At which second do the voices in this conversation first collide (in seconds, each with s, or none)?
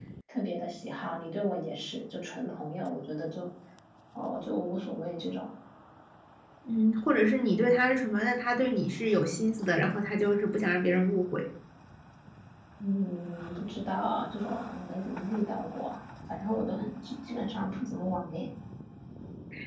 none